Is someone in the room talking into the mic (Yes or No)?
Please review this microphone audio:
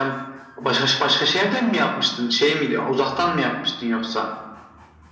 No